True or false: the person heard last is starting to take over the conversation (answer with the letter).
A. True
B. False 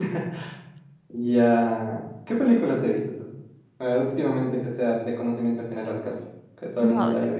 A